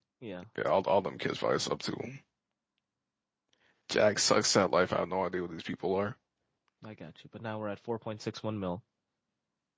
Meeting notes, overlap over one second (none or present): none